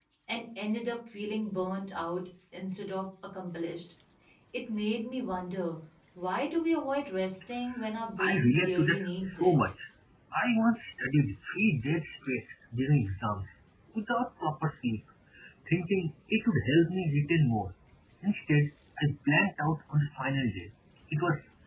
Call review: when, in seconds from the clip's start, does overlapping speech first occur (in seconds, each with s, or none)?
8.2 s